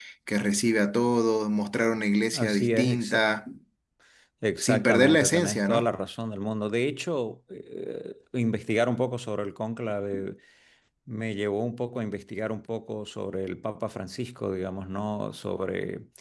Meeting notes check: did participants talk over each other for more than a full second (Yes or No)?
Yes